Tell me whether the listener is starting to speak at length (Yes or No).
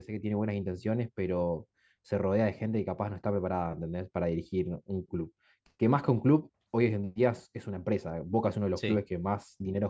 No